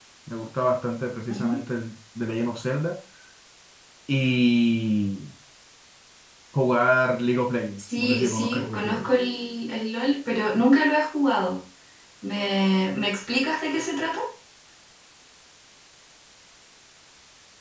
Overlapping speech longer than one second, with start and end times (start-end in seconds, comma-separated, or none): 7.8-9.1